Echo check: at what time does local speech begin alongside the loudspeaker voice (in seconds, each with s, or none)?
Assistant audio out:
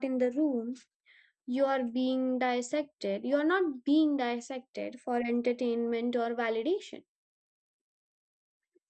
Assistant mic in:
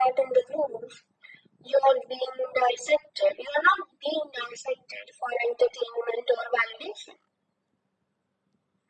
none